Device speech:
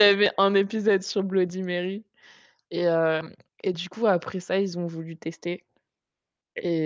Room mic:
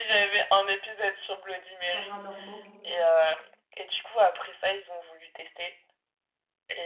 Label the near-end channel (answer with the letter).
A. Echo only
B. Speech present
B